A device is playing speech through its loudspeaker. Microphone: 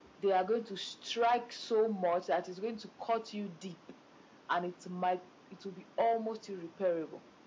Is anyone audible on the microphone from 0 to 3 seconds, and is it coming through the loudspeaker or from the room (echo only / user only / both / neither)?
echo only